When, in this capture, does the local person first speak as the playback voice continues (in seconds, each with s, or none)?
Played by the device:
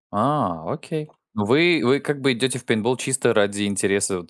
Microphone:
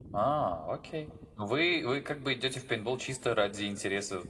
none